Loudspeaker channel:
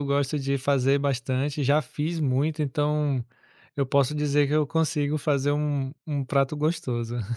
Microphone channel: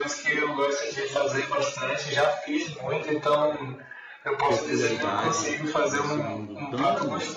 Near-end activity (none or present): present